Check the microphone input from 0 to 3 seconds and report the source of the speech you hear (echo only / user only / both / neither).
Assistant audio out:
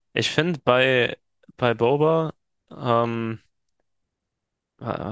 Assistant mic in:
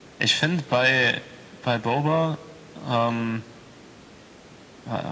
echo only